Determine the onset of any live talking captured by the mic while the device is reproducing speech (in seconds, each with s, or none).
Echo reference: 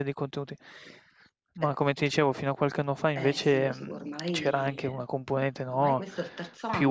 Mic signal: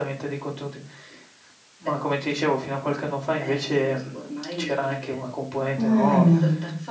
5.7 s